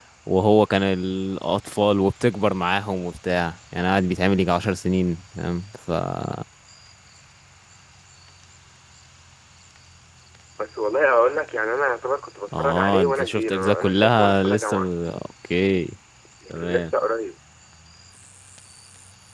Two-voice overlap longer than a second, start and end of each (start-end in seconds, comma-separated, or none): 12.6-14.9